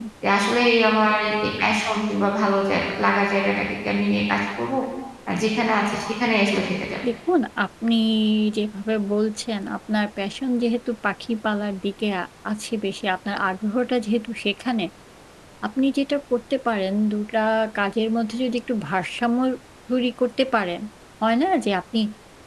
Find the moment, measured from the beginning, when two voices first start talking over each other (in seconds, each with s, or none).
none